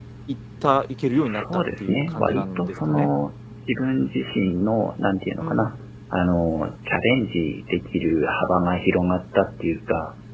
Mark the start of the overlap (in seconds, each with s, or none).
1.1 s